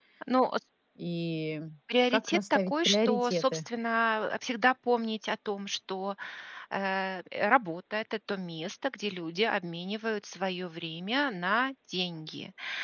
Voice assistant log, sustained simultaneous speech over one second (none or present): present